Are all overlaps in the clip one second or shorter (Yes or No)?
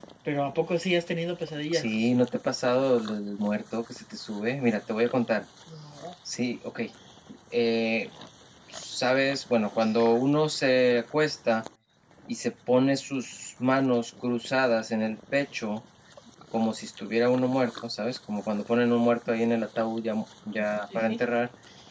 Yes